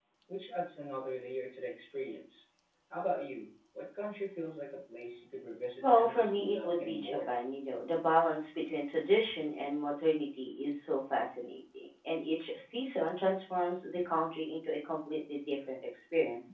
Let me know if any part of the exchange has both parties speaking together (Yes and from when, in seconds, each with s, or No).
Yes, from 5.8 s